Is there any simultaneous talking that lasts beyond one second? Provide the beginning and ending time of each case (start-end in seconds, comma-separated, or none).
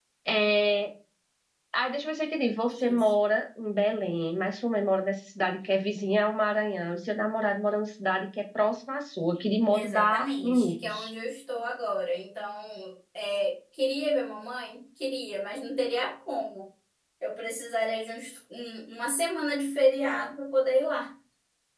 9.7-11.1